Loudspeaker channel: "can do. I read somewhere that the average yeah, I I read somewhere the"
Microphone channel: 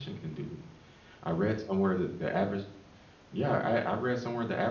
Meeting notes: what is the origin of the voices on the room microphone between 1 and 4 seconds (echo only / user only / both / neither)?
echo only